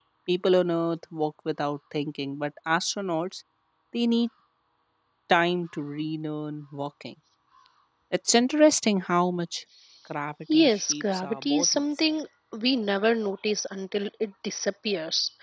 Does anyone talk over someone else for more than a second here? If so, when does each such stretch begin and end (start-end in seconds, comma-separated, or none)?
10.5-11.8